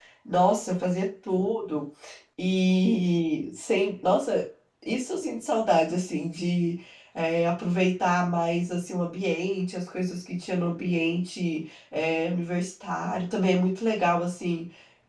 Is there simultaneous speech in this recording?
No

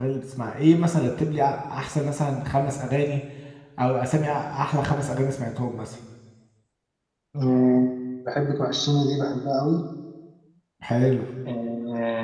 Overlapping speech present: No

